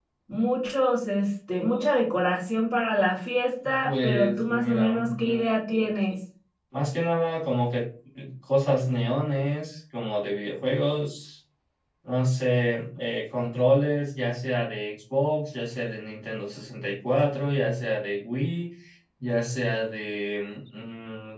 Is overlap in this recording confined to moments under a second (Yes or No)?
No